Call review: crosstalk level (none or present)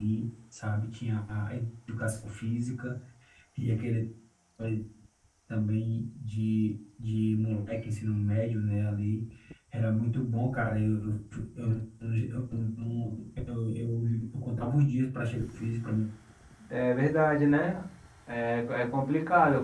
none